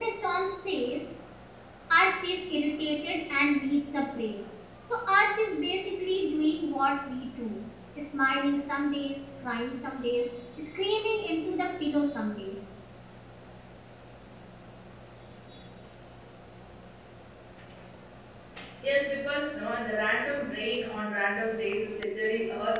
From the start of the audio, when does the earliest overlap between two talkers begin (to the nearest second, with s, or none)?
none